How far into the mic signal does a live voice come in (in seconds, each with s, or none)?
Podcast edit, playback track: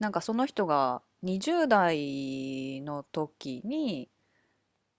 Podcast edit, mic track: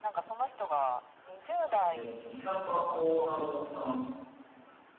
1.9 s